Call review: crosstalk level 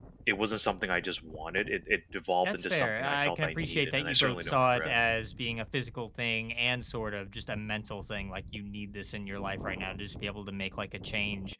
present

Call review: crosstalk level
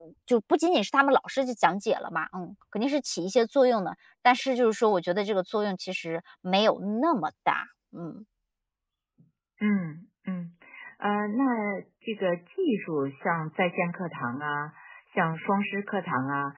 none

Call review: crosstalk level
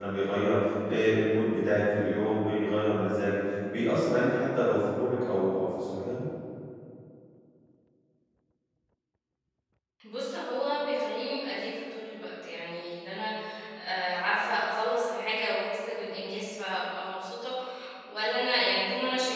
none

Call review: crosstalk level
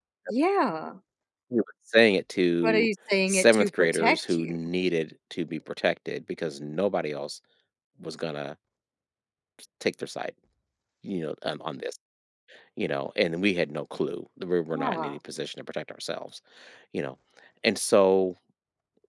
present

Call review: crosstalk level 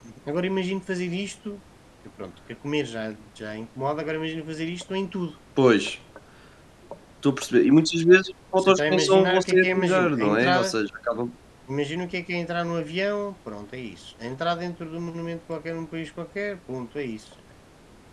present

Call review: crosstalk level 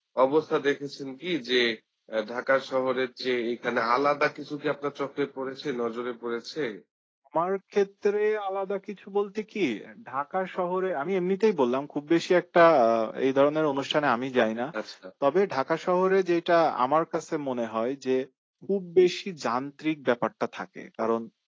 none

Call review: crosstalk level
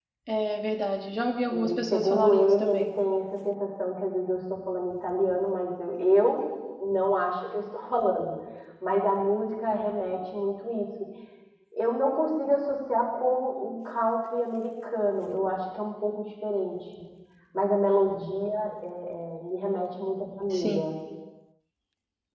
present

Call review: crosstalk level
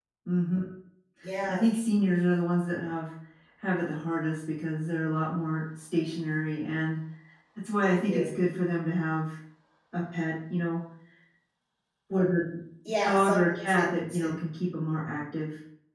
present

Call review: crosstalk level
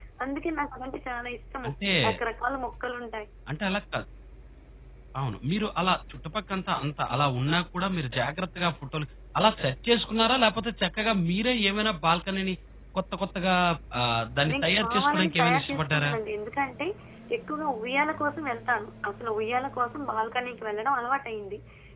present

